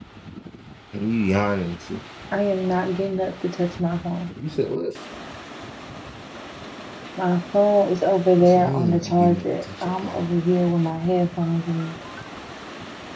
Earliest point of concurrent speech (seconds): 8.4 s

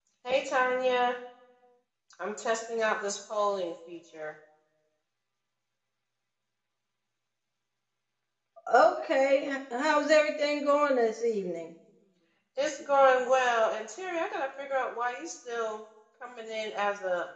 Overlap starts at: none

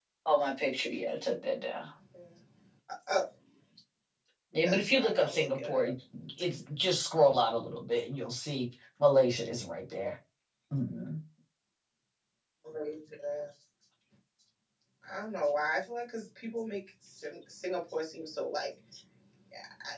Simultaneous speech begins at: 4.6 s

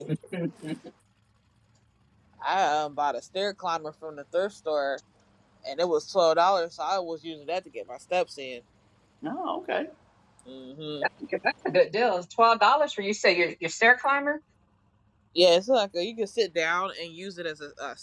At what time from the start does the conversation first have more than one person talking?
none

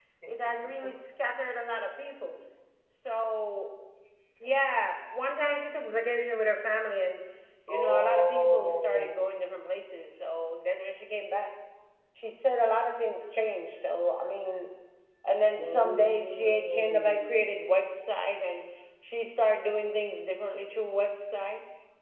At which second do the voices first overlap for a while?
7.7 s

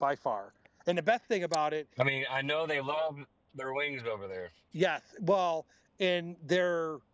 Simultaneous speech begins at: none

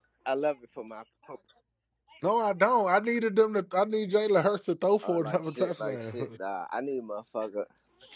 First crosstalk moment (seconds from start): 5.0 s

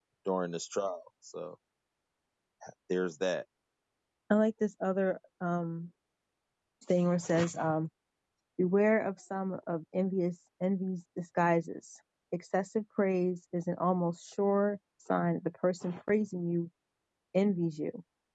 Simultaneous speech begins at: none

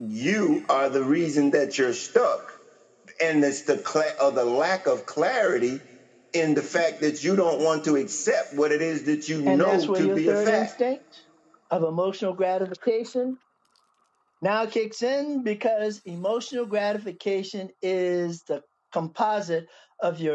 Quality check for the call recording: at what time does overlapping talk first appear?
9.5 s

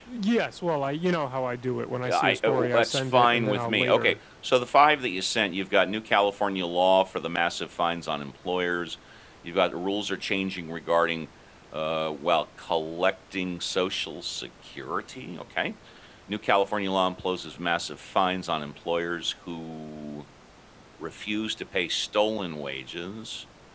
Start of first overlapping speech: 2.0 s

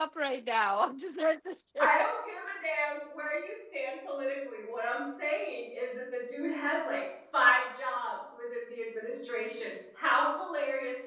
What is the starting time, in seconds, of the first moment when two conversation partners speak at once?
none

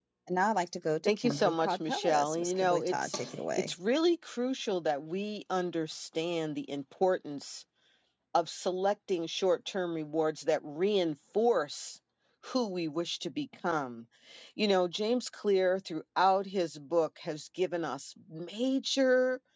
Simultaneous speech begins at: 1.1 s

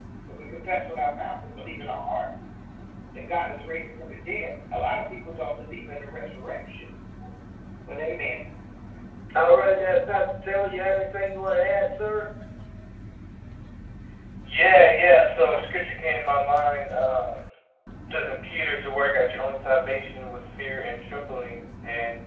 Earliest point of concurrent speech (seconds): none

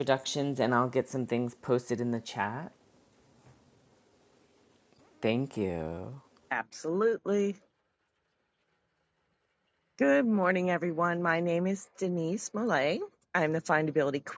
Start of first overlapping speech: none

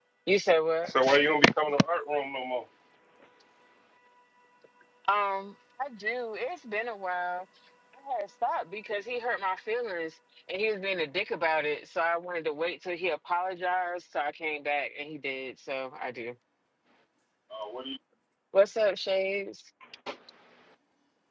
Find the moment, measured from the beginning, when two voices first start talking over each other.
none

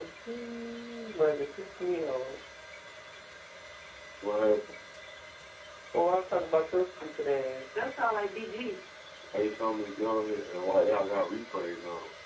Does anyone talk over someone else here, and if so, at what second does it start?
none

